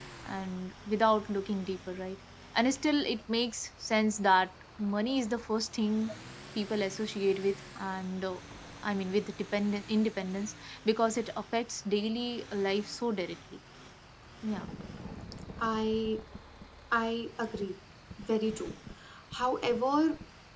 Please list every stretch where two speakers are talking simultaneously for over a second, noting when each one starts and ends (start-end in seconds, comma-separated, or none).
none